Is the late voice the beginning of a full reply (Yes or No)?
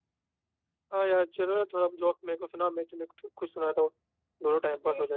Yes